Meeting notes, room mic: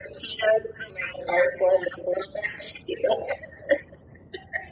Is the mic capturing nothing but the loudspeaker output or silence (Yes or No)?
Yes